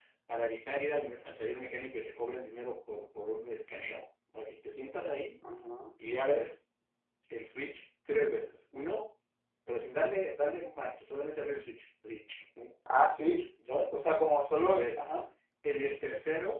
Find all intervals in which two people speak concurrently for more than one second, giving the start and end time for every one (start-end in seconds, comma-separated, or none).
none